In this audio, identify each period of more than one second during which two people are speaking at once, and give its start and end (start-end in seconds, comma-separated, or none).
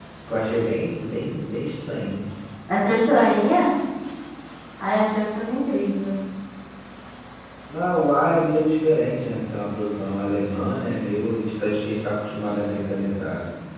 none